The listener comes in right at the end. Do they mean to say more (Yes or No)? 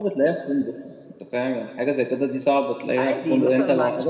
Yes